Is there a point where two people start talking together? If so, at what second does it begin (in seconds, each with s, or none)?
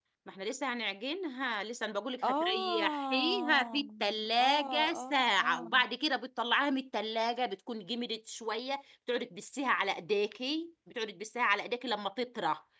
2.2 s